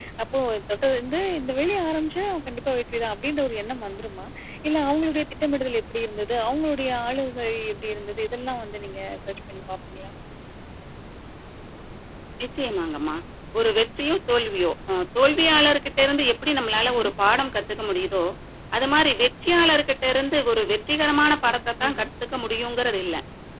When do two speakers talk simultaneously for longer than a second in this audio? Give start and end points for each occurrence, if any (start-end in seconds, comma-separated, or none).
none